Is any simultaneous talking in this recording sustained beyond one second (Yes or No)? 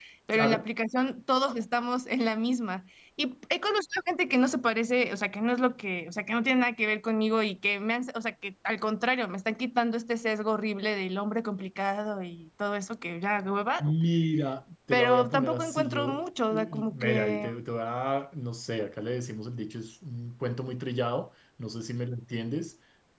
Yes